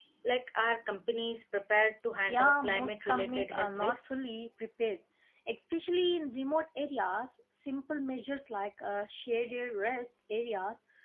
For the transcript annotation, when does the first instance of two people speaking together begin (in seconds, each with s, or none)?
2.3 s